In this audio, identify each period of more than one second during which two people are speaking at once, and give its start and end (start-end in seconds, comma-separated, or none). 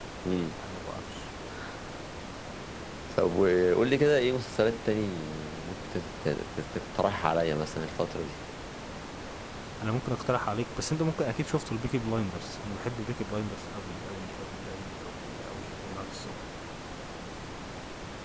none